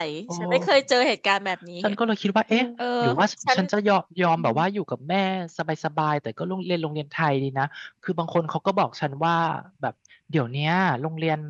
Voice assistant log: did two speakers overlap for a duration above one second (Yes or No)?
No